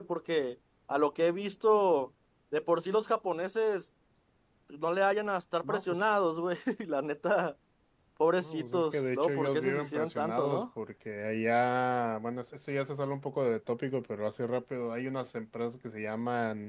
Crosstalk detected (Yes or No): Yes